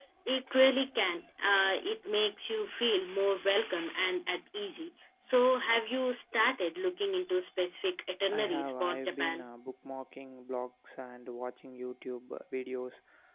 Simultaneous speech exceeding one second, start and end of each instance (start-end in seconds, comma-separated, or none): 8.3-9.5